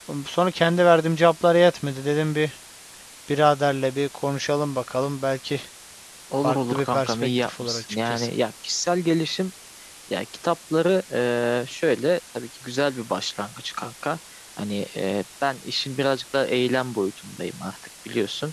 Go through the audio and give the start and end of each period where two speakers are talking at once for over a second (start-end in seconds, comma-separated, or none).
6.4-8.3